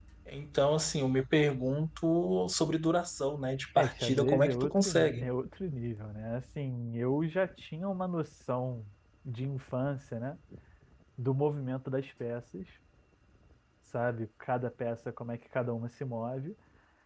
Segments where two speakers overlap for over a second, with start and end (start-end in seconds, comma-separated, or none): 3.8-5.3